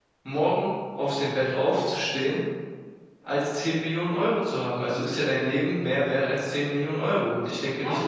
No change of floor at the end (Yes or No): No